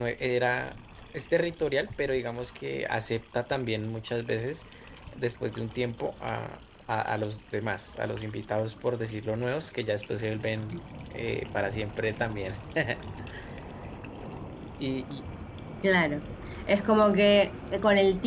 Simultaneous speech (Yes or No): No